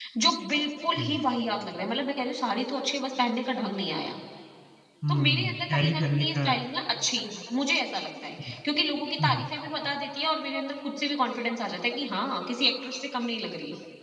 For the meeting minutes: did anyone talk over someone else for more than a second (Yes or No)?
Yes